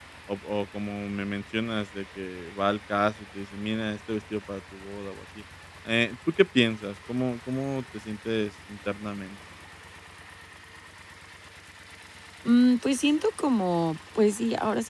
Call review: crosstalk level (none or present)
none